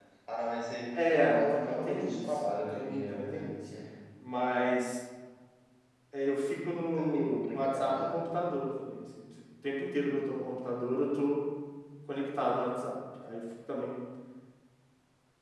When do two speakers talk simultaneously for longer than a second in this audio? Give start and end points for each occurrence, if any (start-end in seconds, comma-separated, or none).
1.1-3.6, 7.0-8.2